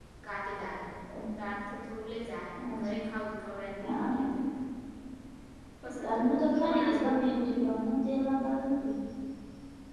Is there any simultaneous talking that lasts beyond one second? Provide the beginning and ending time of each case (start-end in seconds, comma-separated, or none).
6.0-7.7